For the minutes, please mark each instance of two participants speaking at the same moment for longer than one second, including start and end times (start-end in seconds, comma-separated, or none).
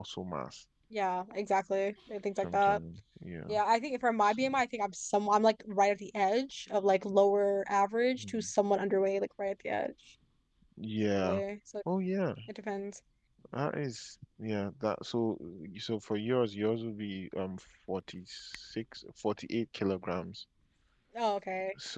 none